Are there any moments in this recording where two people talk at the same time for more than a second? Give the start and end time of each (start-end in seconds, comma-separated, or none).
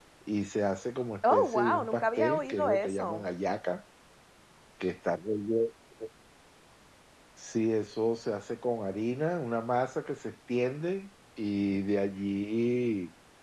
1.3-3.2